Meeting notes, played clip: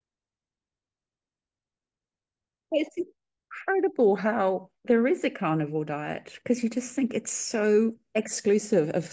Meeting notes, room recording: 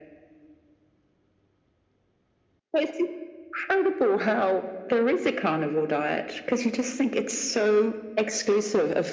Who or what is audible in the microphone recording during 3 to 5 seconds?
echo only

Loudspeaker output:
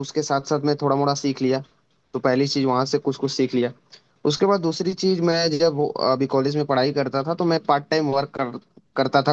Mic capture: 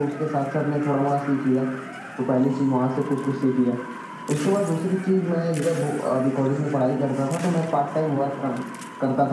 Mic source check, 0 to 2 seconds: echo only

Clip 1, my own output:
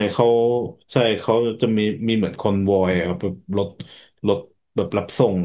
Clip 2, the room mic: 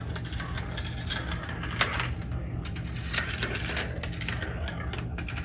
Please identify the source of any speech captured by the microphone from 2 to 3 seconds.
neither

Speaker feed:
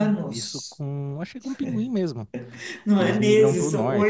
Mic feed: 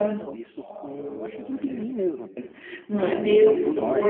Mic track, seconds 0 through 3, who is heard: both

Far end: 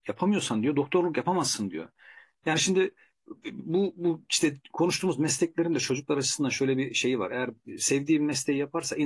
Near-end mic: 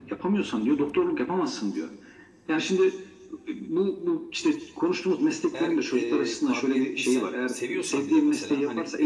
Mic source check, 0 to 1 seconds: echo only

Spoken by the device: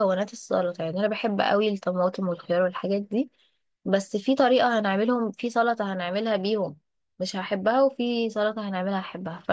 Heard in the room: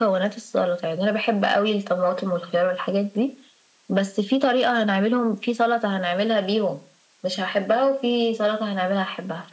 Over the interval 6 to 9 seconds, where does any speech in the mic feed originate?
echo only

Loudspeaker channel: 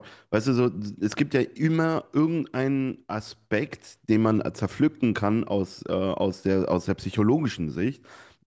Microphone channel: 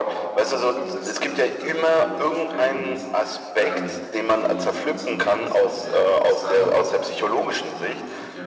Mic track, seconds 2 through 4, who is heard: both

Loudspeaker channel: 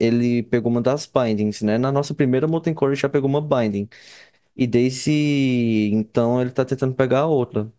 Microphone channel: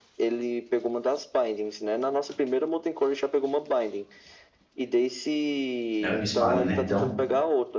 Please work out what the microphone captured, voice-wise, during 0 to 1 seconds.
echo only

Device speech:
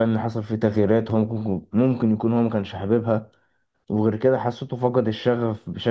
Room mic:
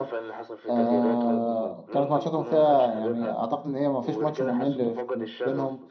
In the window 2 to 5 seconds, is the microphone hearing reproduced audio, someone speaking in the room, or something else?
both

